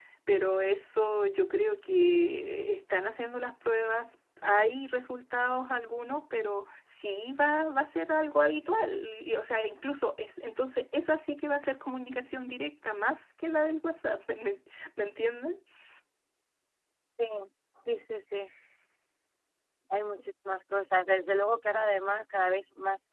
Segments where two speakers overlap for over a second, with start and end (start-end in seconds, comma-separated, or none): none